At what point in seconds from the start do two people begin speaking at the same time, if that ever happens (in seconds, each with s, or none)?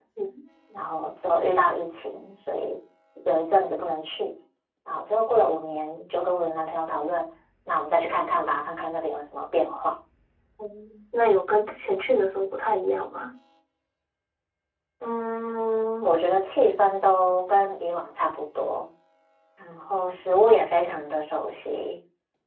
none